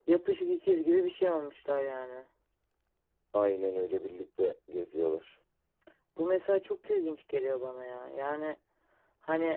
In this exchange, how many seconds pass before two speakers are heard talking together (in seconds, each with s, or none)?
none